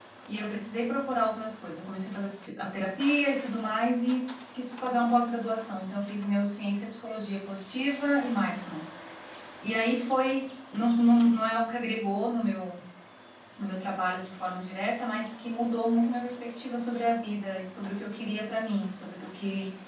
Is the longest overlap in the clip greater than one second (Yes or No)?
No